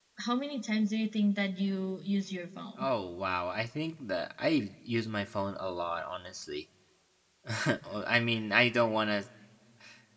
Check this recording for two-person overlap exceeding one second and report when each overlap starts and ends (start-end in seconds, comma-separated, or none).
none